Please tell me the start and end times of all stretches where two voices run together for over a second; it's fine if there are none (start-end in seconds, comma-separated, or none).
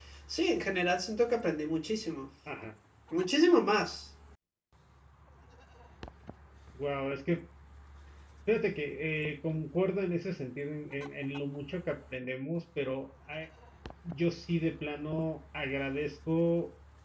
none